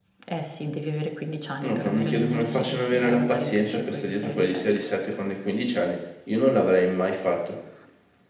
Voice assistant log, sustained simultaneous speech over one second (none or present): present